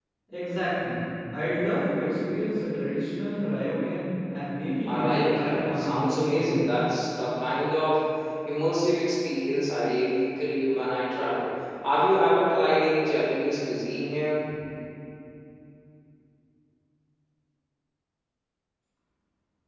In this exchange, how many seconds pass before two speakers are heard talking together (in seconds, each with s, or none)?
4.9 s